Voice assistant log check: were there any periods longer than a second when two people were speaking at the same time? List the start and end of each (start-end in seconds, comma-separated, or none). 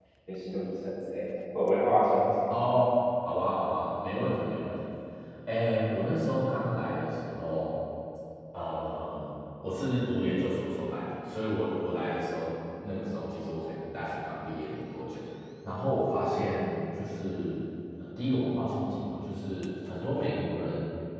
none